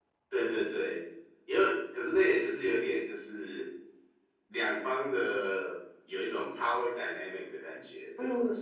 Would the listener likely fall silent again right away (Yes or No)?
No